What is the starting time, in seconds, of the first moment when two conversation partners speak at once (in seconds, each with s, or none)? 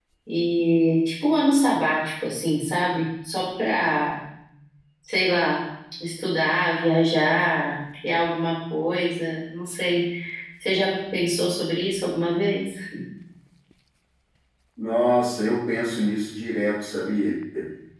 none